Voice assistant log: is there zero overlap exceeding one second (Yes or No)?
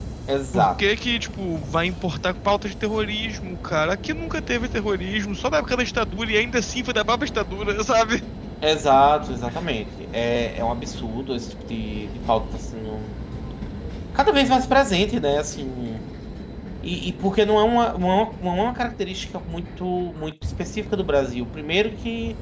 Yes